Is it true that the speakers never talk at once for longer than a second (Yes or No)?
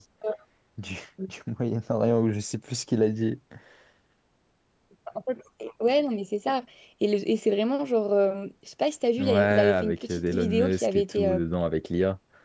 No